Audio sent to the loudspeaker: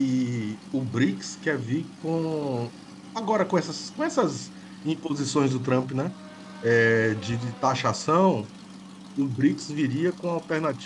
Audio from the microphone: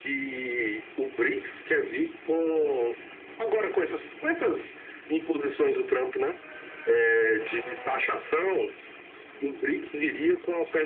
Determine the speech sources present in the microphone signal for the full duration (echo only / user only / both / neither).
echo only